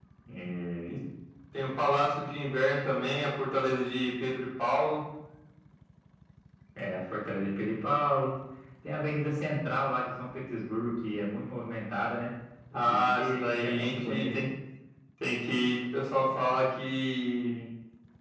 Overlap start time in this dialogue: 12.7 s

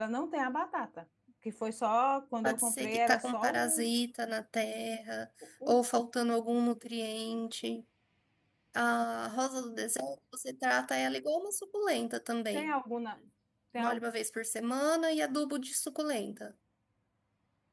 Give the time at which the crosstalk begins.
2.4 s

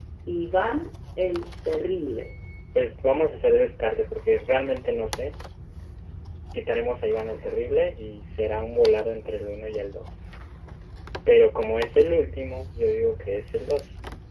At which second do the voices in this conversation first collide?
none

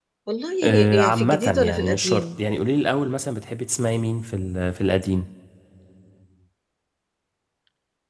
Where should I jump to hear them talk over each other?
0.9 s

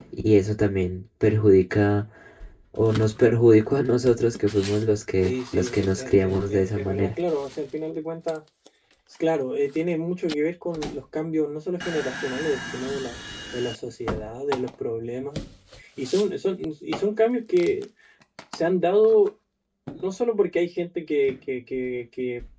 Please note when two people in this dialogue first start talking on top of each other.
5.2 s

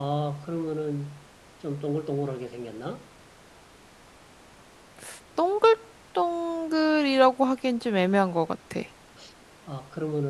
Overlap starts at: none

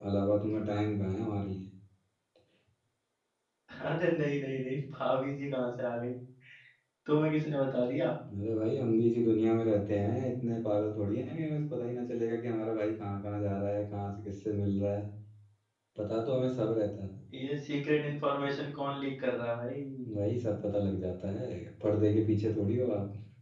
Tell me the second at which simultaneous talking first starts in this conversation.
none

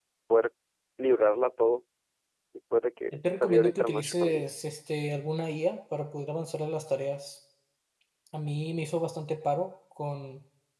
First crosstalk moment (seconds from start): 3.1 s

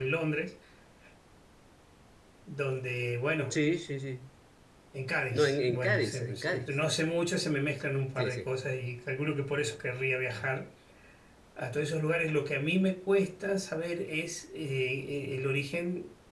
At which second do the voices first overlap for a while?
5.3 s

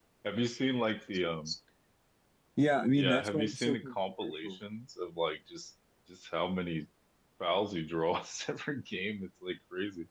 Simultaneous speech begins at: 3.0 s

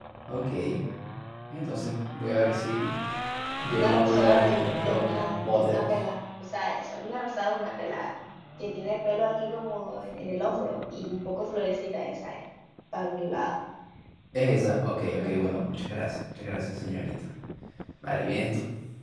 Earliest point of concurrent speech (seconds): 3.7 s

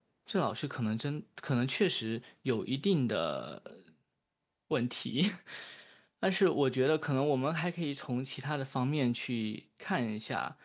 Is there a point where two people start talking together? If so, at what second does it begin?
none

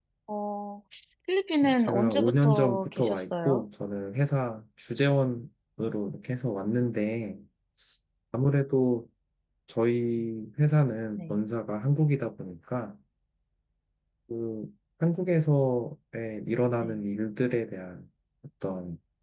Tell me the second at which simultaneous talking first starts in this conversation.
1.6 s

